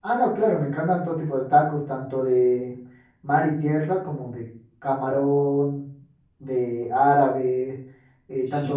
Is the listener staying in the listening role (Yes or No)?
Yes